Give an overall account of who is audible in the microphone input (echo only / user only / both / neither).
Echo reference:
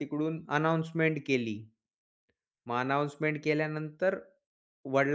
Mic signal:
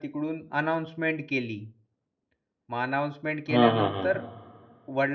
both